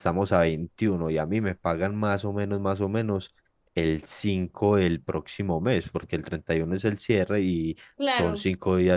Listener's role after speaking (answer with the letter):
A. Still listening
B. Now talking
A